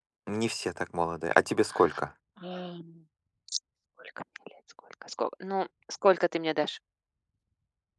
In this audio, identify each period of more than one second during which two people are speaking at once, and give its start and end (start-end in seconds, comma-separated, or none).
none